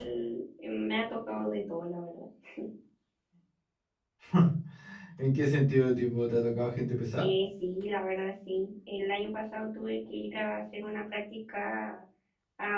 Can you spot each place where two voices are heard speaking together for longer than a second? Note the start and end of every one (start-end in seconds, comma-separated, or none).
none